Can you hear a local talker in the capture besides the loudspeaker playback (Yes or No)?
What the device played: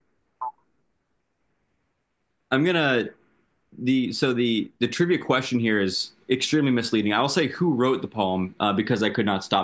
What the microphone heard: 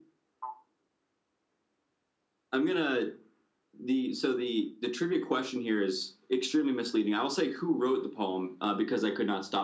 No